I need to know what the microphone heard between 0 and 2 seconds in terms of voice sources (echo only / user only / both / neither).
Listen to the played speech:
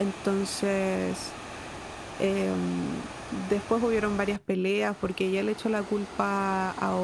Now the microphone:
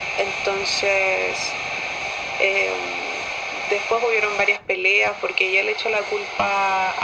echo only